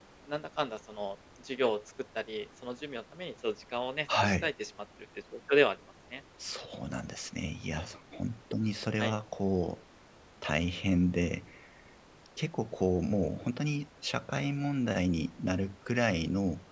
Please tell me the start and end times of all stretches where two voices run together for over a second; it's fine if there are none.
none

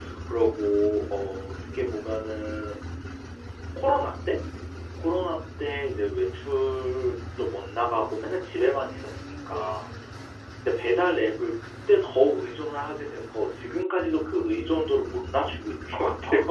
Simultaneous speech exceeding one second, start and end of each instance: 8.6-9.8

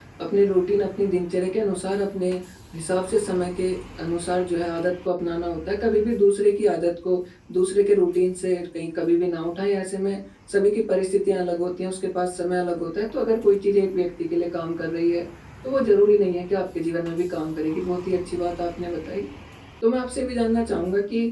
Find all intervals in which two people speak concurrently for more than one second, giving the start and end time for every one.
none

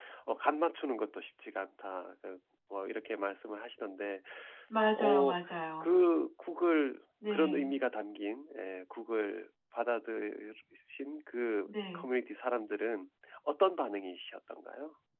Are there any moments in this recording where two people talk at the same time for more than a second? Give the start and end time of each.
none

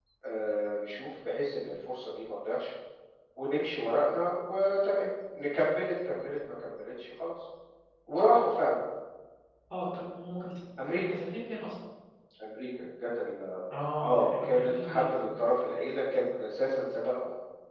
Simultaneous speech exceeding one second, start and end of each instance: 14.0-15.2

